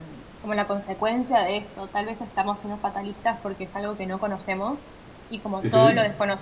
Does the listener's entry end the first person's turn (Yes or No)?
No